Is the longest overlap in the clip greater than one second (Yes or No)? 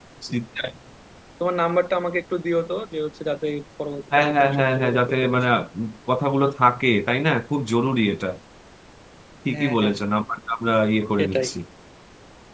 Yes